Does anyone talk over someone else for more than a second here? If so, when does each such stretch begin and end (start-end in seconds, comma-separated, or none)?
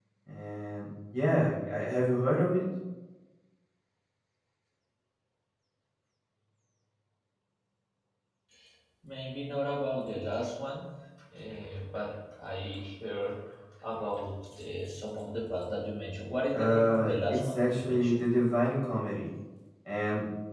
16.5-18.2